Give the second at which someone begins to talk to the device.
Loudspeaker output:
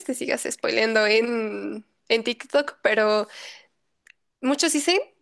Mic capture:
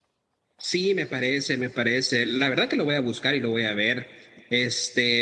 1 s

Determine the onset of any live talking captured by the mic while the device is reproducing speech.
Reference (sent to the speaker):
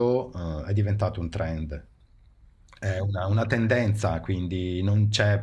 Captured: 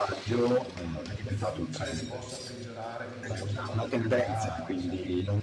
1 s

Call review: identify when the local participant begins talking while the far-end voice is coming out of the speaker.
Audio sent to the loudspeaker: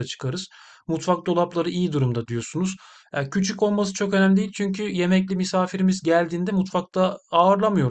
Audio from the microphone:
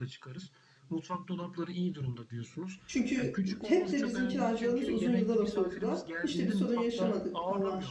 3 s

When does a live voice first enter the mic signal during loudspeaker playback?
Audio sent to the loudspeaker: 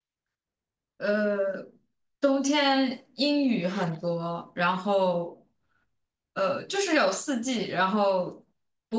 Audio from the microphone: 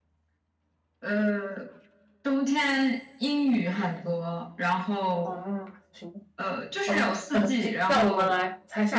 5 s

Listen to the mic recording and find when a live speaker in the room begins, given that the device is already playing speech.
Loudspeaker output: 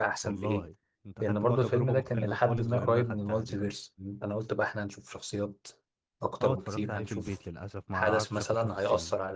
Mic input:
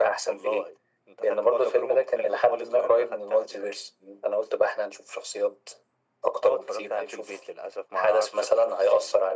none

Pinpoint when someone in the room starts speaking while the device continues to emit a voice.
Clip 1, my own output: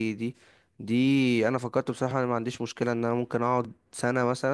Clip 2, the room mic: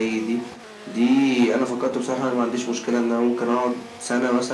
none

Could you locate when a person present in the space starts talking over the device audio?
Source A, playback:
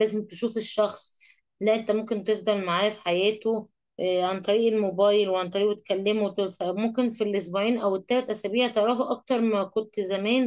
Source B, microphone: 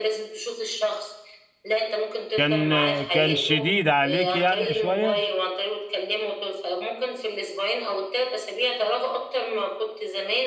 2 s

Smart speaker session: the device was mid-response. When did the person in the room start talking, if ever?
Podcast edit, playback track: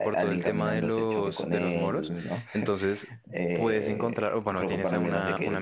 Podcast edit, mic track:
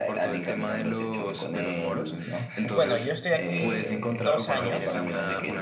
3 s

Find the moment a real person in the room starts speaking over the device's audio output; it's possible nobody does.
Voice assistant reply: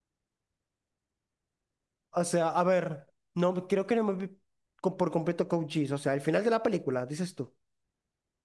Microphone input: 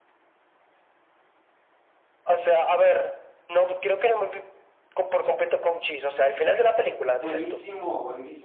7 s

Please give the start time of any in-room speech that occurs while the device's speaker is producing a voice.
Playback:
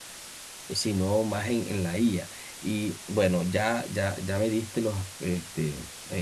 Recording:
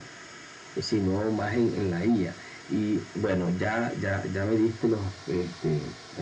none

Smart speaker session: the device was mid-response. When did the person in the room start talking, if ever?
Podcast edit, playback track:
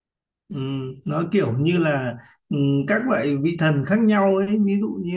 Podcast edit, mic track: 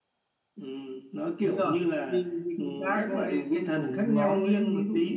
1 s

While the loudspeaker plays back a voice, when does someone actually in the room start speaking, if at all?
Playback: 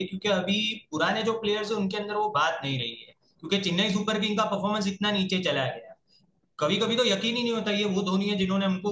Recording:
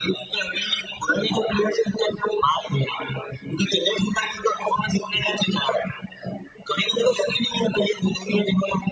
none

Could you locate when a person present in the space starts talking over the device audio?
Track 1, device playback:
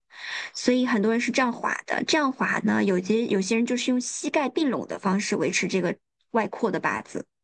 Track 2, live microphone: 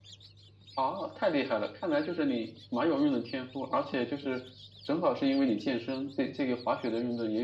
1 s

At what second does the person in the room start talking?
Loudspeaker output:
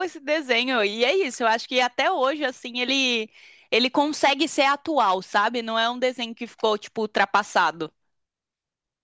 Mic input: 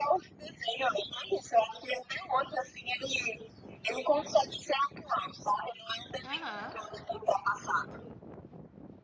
6 s

